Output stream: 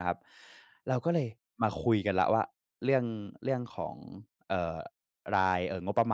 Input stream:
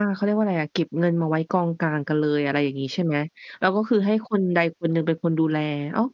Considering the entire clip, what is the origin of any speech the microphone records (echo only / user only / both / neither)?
user only